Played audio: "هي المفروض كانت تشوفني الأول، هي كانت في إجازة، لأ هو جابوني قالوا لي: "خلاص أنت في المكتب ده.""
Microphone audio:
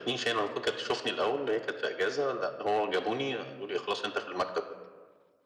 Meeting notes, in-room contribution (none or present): none